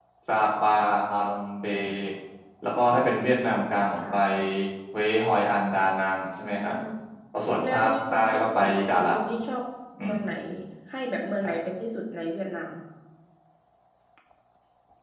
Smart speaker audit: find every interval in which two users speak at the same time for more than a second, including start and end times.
7.6-9.1

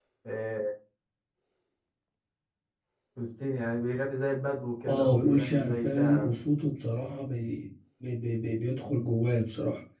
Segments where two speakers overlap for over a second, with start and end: 4.9-6.3

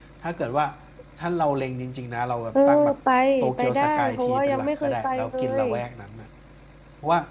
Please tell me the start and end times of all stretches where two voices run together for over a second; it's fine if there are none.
3.5-5.6

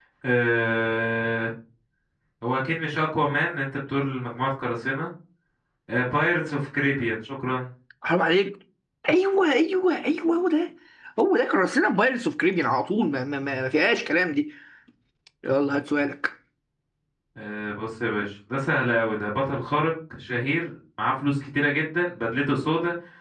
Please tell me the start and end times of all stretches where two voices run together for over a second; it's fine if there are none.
none

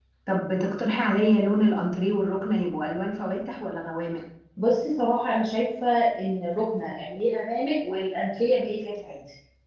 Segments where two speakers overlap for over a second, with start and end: none

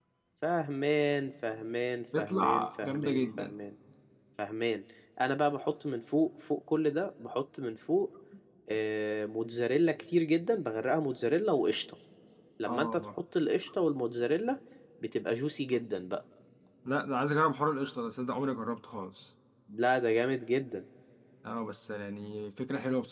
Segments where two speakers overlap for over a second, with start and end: 2.2-3.5

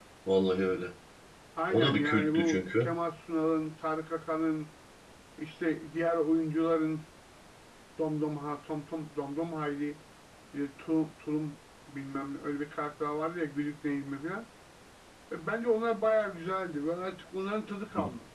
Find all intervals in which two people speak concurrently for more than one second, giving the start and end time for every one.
1.7-2.9

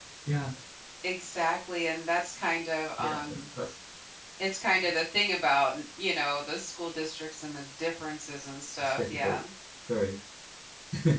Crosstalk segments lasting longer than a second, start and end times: none

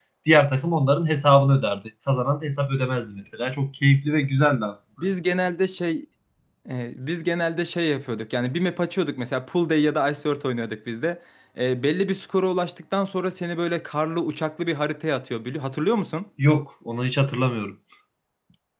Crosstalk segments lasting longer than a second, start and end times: none

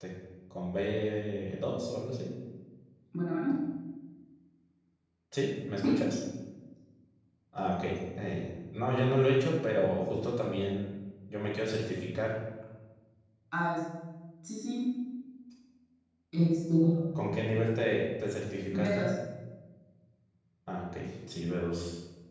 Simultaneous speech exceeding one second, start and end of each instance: none

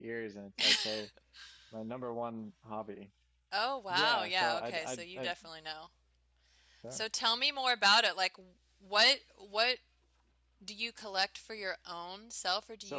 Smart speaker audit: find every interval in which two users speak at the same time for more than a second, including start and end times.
3.9-5.3

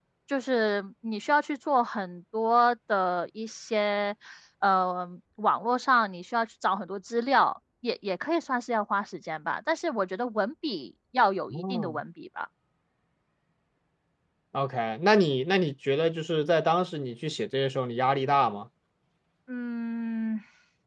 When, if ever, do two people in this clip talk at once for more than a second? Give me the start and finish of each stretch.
none

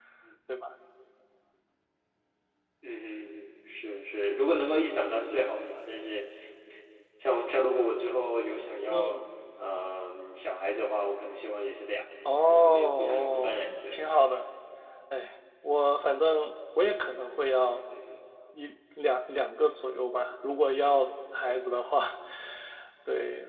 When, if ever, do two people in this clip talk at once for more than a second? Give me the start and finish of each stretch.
12.4-14.1

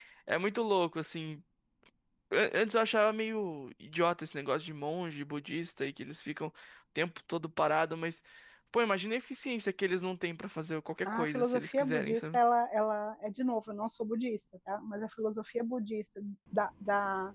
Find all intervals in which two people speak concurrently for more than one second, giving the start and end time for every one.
11.0-12.4

